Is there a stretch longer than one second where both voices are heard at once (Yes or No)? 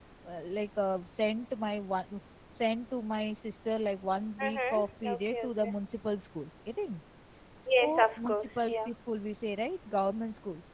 Yes